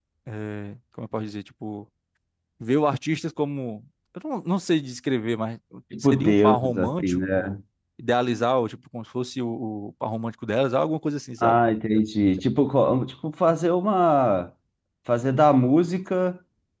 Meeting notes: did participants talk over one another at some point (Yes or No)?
Yes